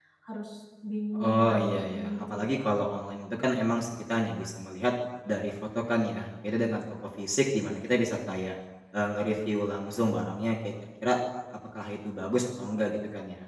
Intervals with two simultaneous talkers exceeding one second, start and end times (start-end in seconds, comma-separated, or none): 1.2-2.7